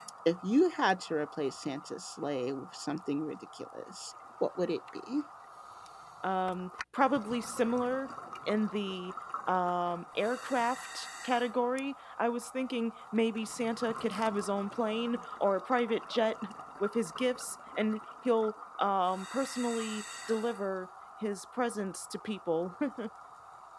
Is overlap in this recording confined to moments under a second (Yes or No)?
Yes